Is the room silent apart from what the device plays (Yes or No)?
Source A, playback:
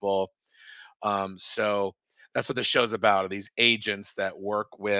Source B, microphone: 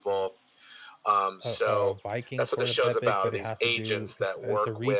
No